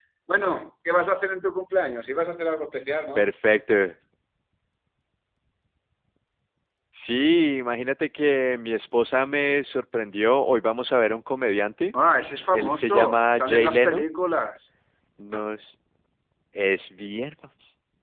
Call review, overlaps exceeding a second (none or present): present